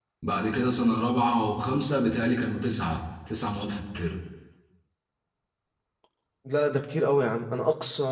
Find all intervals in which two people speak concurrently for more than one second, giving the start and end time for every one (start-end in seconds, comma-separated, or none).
none